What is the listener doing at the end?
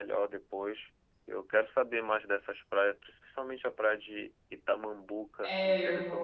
taking over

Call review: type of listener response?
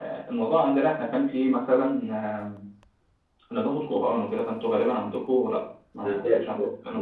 taking over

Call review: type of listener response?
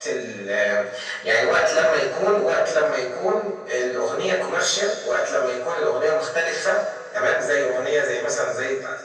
listening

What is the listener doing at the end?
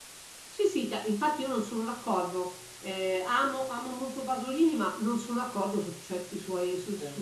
listening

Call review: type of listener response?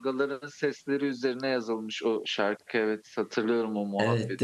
taking over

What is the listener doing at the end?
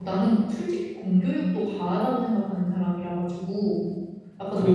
taking over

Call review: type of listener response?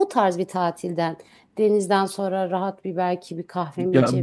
taking over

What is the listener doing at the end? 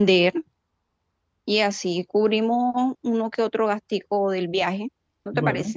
taking over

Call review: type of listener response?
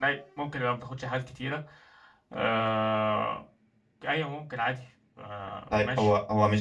taking over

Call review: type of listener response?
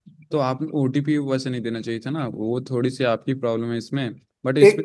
taking over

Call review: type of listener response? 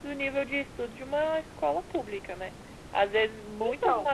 listening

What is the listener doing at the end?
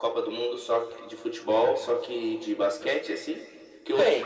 listening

